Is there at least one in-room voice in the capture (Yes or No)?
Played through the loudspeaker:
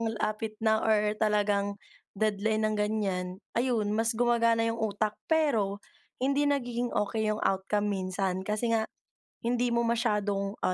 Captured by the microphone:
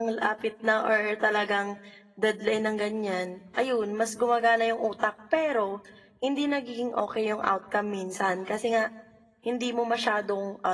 No